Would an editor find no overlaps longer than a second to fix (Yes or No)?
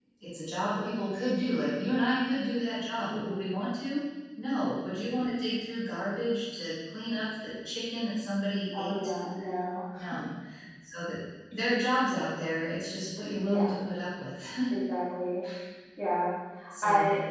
Yes